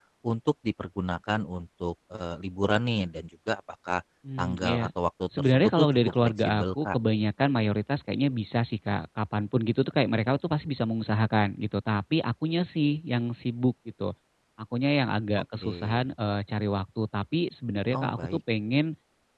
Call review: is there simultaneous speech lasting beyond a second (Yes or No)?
Yes